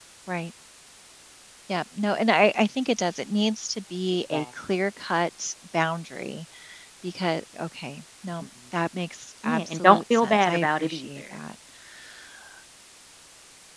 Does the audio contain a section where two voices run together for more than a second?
Yes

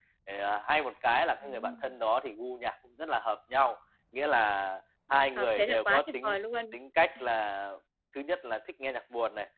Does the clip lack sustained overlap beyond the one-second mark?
No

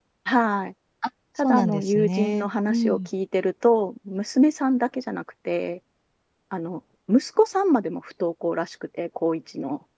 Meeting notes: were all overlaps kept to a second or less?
No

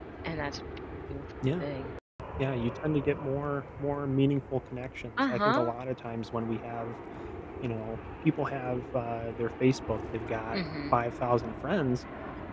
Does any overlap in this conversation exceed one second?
No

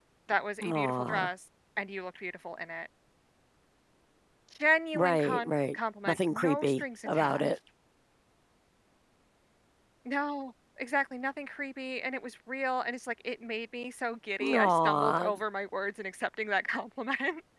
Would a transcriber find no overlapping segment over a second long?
No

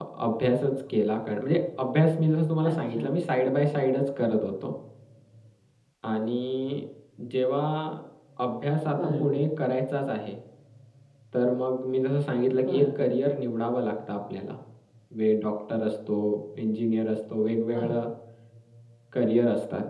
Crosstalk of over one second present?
No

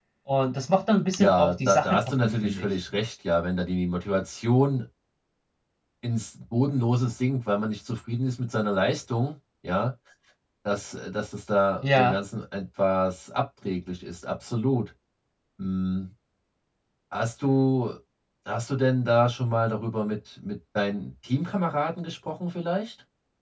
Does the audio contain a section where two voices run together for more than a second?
Yes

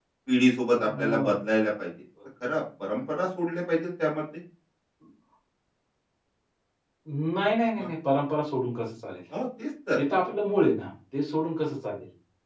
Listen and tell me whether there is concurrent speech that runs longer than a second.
No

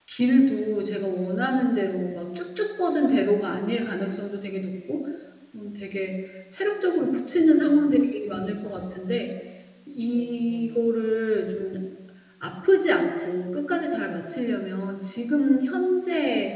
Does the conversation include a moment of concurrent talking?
Yes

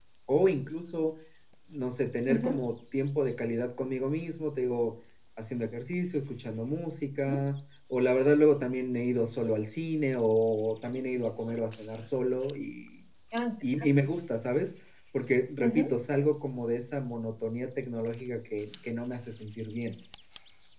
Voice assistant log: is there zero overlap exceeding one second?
Yes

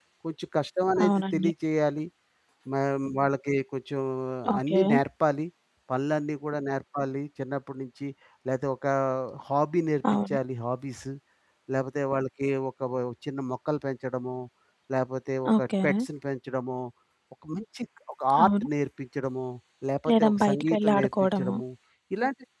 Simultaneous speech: Yes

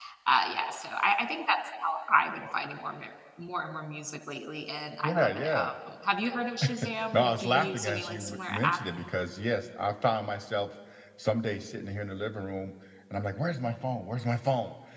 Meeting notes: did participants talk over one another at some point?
Yes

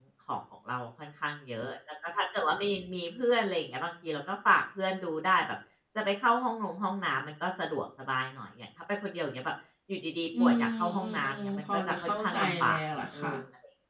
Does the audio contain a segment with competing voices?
Yes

